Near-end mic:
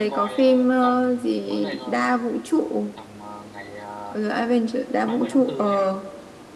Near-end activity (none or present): present